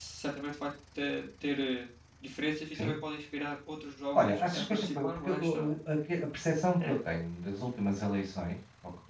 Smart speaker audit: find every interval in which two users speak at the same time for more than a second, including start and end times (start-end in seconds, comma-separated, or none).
4.2-5.7